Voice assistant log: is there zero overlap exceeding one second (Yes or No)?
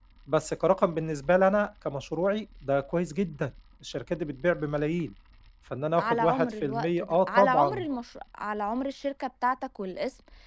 No